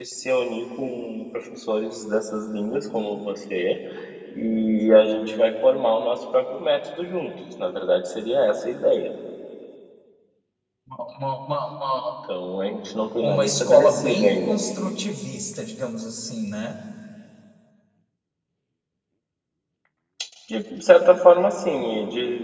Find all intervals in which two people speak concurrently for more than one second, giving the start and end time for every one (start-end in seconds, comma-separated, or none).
13.2-14.6